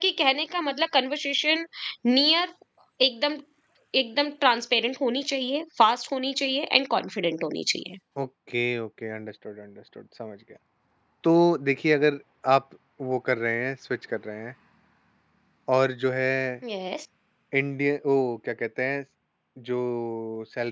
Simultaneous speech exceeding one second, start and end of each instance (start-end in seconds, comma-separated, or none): none